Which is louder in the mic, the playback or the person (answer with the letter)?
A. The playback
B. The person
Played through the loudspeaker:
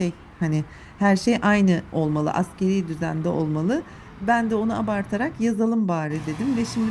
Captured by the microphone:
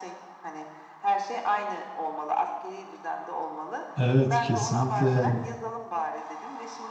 B